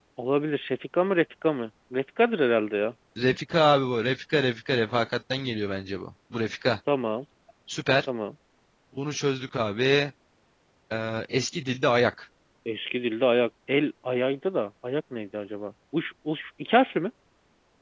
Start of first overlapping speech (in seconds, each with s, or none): none